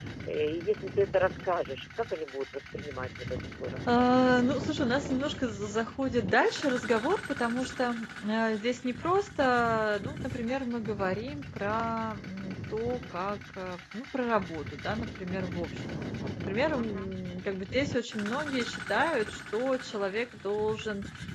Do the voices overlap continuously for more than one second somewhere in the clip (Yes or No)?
No